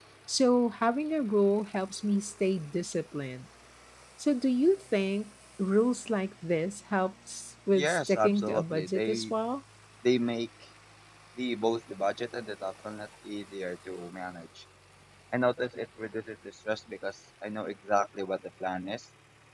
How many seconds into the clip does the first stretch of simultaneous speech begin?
8 s

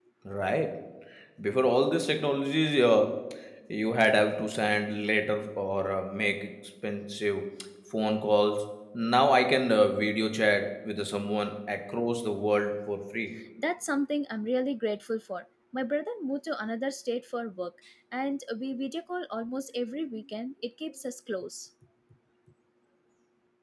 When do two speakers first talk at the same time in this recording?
none

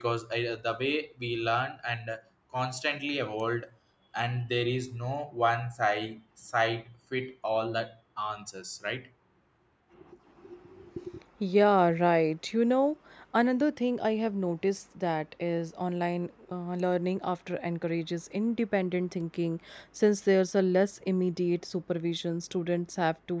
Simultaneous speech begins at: none

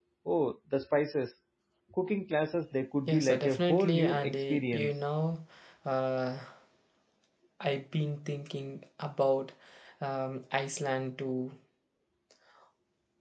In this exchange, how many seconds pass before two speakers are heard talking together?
3 s

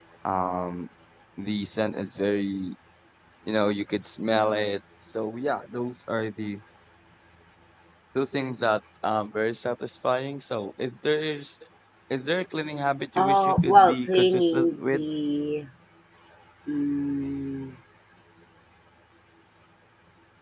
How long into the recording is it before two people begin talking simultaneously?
13 s

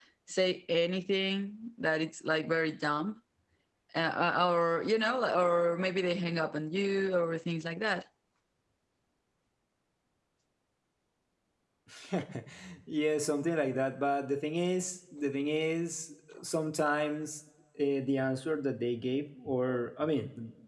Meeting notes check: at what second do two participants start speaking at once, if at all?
none

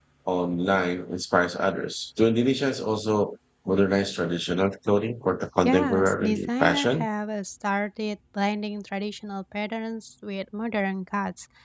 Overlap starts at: 6 s

